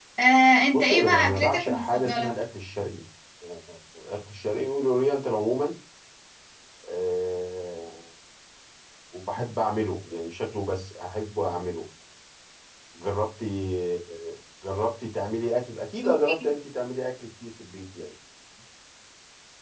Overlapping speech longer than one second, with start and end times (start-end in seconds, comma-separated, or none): 0.7-2.3